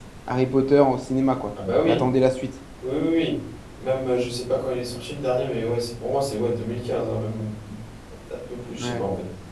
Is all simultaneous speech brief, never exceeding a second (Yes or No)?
Yes